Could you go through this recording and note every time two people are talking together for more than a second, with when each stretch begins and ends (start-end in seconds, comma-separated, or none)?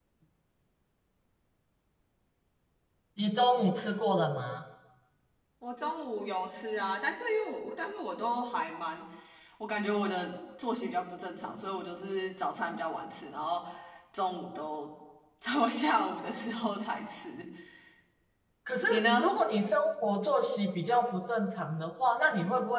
none